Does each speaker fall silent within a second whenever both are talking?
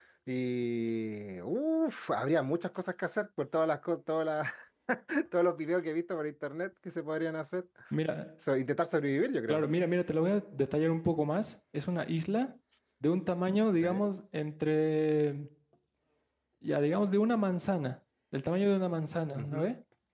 Yes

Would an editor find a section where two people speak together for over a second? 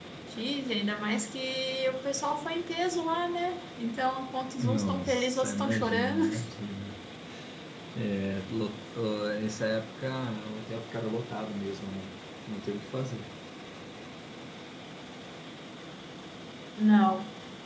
Yes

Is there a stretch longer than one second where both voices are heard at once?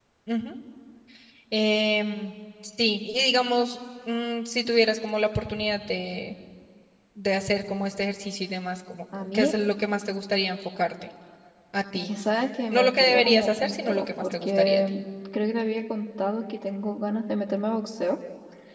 Yes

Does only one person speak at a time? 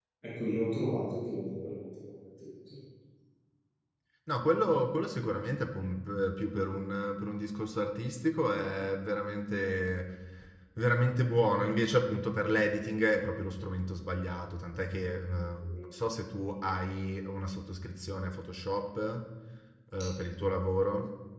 Yes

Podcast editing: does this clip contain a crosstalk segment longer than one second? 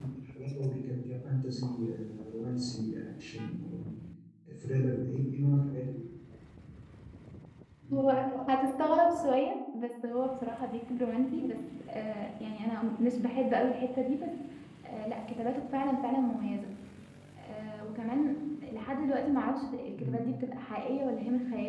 No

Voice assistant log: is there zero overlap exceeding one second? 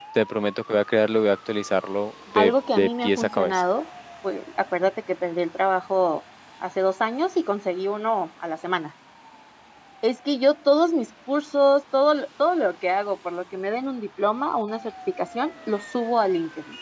No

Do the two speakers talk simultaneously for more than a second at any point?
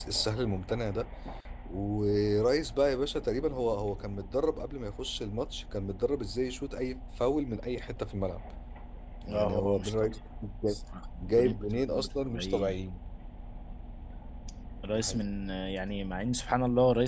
Yes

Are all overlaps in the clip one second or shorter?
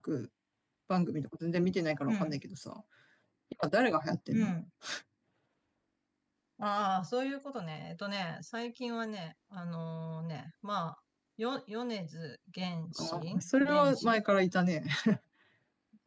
No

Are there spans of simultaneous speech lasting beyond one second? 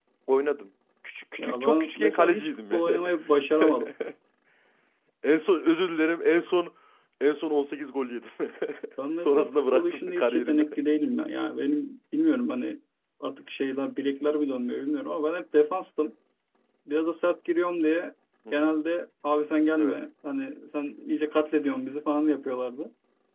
Yes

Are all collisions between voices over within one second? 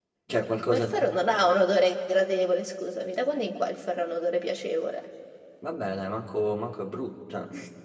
Yes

